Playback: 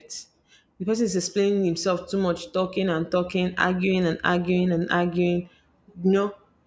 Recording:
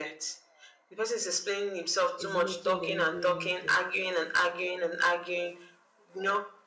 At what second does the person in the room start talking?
2.2 s

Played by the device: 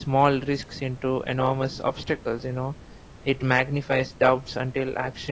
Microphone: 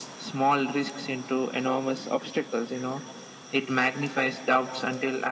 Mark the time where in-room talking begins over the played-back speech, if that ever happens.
none

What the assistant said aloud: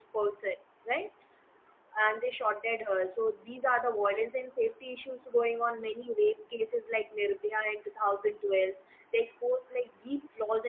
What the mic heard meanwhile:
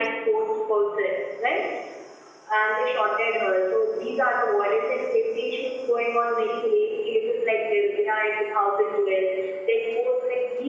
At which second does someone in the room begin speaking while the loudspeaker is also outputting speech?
none

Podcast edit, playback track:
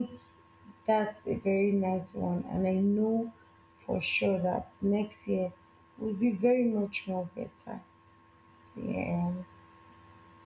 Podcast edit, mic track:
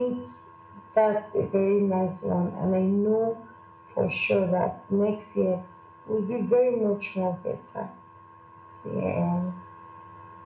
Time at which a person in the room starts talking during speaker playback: none

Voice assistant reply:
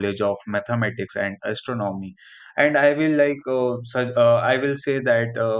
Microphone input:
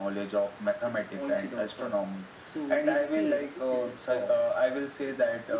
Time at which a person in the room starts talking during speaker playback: 0.9 s

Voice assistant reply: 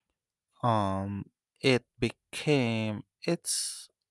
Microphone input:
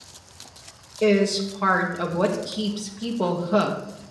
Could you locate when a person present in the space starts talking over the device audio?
1.0 s

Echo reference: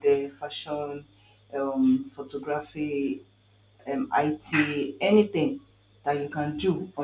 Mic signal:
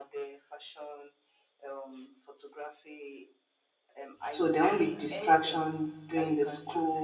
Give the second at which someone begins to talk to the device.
4.3 s

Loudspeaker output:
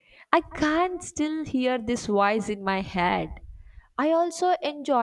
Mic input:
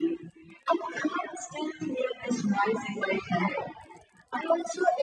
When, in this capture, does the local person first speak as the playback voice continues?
none

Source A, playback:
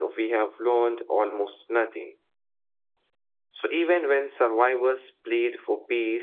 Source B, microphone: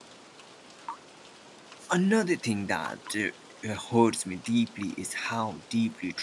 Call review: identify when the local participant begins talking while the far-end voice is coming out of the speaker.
1.9 s

